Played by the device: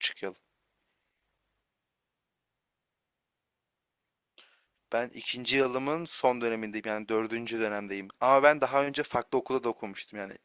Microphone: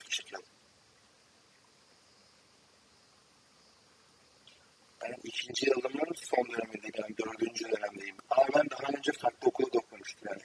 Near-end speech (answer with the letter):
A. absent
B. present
A